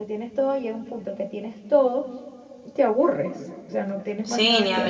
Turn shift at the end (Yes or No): Yes